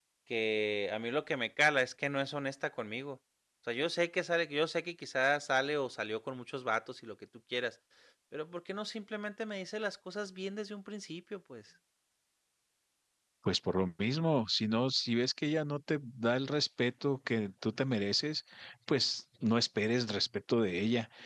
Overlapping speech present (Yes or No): No